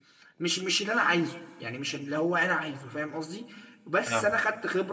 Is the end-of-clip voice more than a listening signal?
No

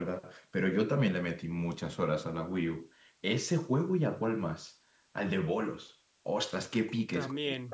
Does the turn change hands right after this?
No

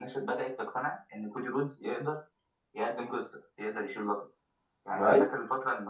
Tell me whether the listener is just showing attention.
Yes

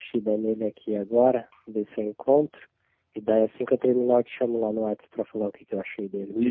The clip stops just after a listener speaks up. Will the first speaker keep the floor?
No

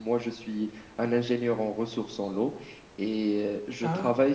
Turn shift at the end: No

